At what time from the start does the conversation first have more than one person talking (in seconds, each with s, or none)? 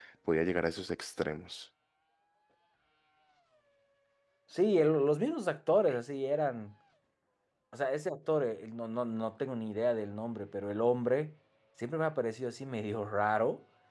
none